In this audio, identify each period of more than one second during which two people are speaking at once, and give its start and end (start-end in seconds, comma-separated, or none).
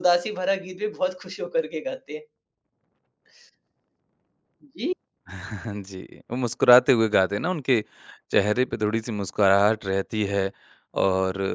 none